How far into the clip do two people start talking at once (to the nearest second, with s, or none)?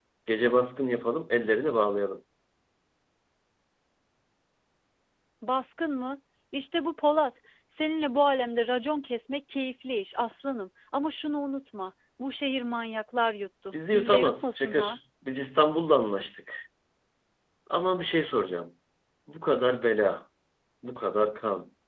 14 s